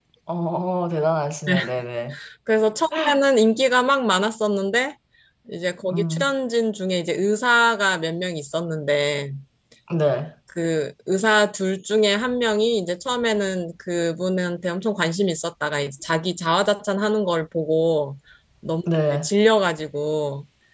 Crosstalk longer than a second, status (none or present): none